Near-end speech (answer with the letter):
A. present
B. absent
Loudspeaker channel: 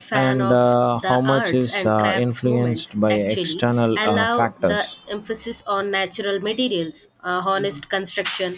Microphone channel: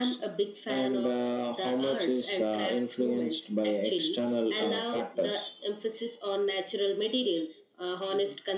B